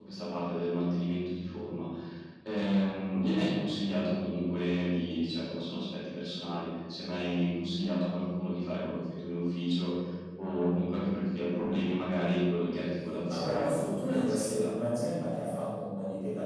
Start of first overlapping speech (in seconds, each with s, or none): 13.3 s